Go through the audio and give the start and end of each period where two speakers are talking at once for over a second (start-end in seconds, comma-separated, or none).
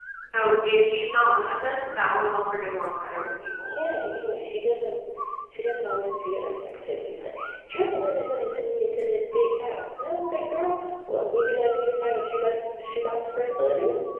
none